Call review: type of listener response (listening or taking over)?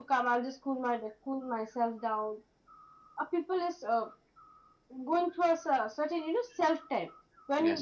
listening